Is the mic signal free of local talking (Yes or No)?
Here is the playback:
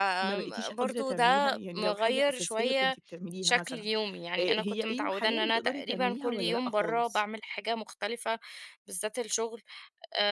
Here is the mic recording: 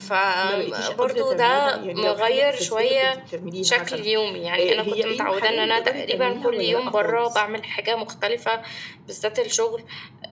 Yes